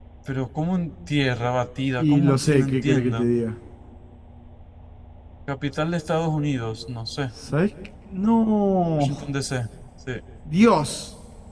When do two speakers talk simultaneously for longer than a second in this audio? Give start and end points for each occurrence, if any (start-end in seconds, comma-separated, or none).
2.0-3.3